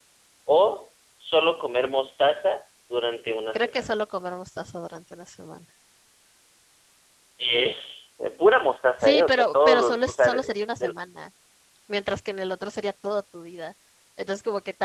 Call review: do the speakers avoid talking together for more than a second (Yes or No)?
No